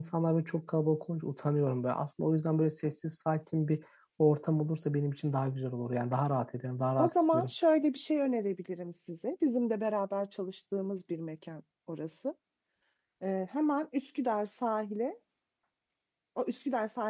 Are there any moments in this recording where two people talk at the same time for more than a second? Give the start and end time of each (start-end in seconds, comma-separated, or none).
none